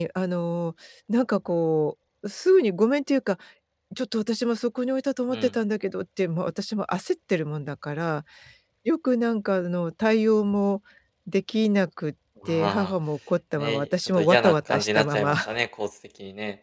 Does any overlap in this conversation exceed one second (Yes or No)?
Yes